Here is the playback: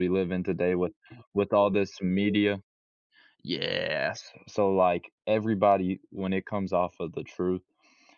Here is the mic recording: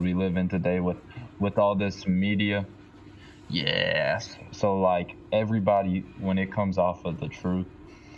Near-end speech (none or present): none